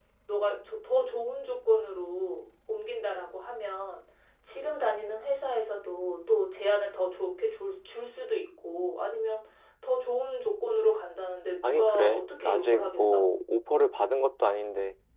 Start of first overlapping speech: 11.6 s

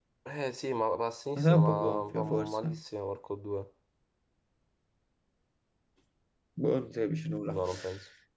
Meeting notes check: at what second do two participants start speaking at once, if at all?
1.4 s

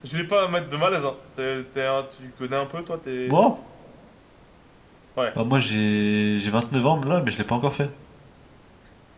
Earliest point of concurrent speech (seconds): none

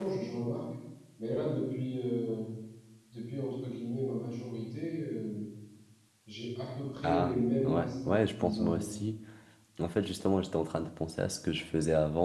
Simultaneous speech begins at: 7.0 s

